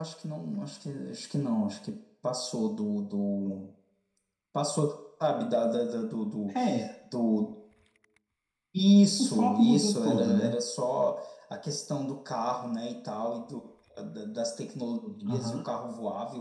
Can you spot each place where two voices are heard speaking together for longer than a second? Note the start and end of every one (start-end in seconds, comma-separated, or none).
9.2-10.6